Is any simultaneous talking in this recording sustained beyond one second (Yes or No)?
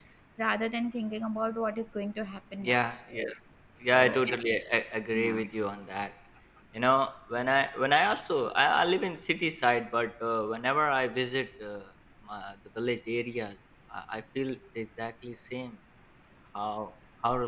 No